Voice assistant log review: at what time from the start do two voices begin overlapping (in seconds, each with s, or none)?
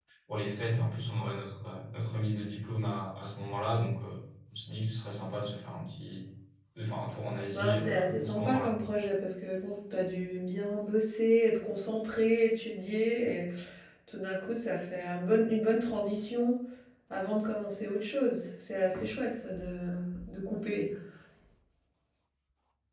7.5 s